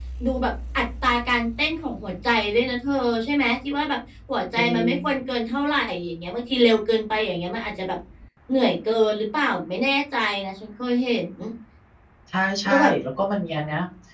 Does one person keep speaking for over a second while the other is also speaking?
No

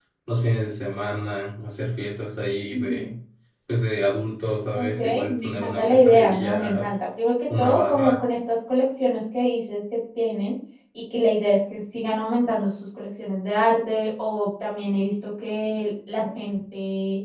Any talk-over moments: Yes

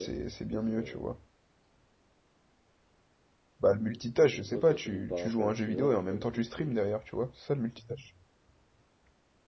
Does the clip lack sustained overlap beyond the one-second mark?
No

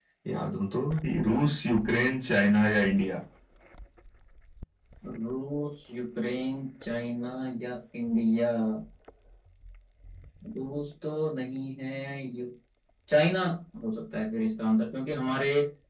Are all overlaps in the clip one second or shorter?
Yes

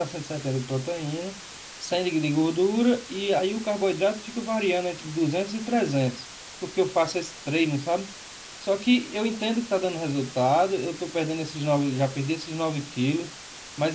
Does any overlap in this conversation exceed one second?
No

